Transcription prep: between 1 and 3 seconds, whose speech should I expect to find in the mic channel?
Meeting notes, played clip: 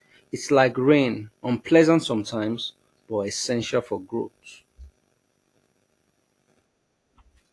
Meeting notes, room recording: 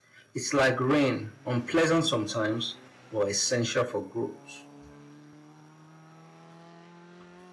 echo only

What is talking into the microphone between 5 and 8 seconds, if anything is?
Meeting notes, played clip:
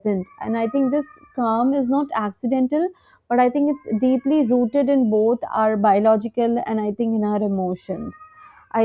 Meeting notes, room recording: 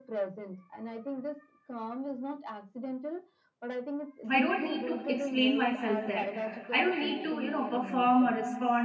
both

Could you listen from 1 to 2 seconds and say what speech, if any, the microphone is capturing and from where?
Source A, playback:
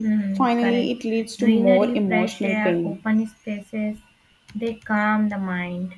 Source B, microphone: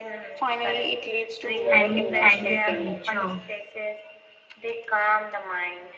both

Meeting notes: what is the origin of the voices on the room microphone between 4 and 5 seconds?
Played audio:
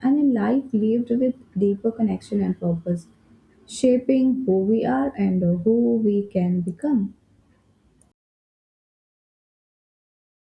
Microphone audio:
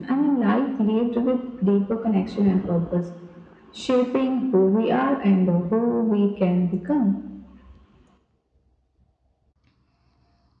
echo only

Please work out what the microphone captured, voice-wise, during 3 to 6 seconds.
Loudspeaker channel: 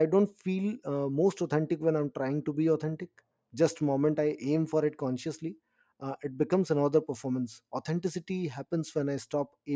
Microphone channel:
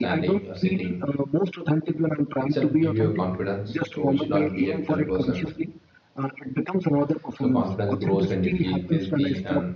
both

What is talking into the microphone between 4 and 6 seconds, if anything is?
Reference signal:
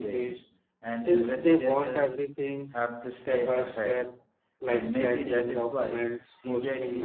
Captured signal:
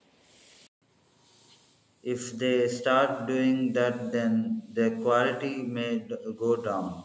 user only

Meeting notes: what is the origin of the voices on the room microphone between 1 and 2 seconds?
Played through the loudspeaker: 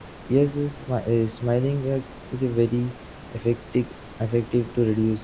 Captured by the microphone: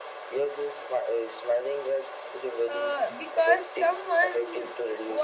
echo only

